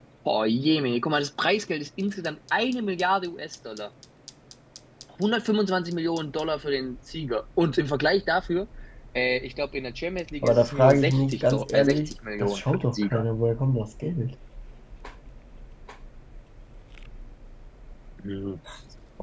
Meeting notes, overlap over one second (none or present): present